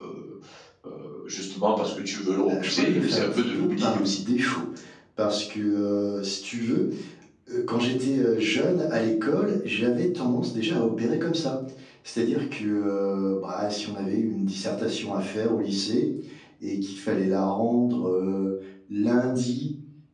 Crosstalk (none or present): present